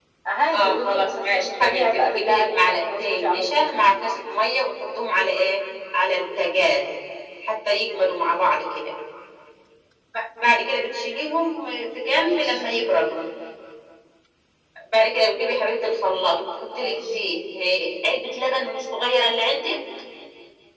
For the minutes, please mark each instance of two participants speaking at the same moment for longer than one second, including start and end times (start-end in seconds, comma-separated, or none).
0.5-3.8